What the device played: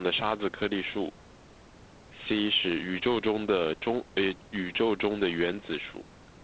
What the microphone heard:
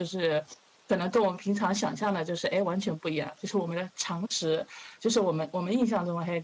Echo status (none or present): none